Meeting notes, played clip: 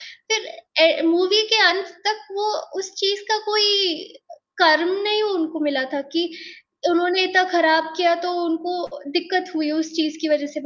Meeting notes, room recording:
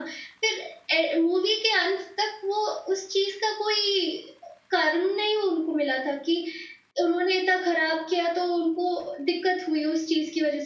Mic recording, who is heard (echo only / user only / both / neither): echo only